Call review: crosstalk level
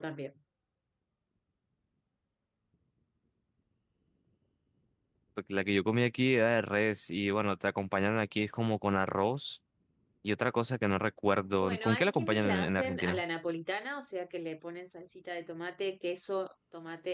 present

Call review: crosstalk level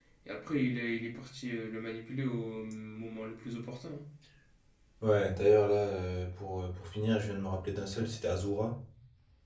none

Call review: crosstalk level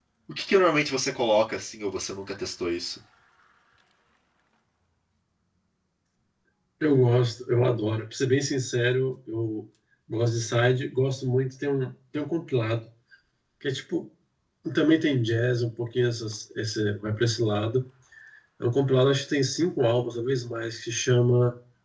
none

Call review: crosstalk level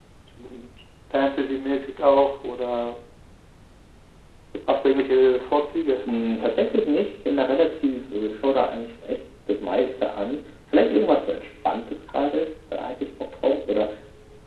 none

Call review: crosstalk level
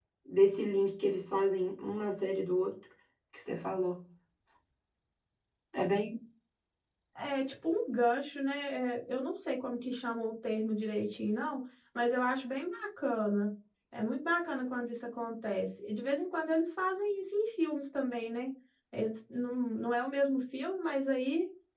none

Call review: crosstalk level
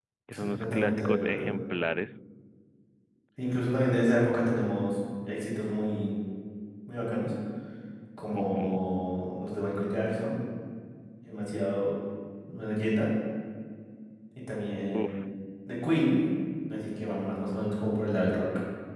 present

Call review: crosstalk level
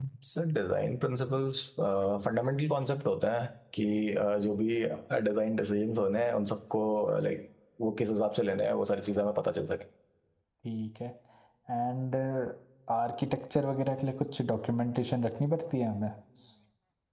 none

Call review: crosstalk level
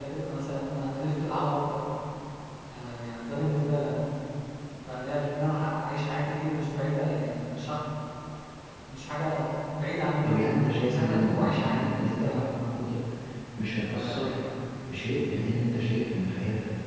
present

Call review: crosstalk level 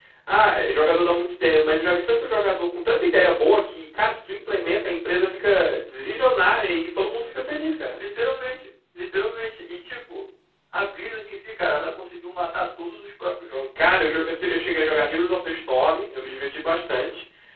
none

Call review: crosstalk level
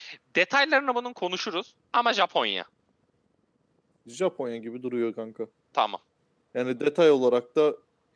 none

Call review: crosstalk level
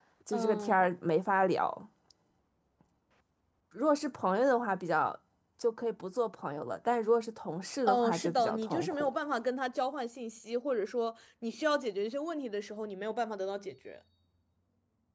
present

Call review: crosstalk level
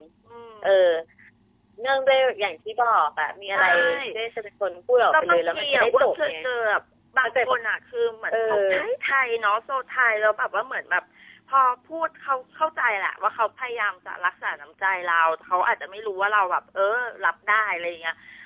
present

